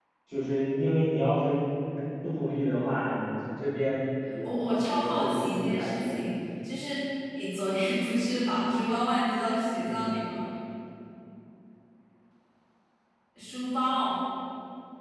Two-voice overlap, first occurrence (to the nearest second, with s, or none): 5 s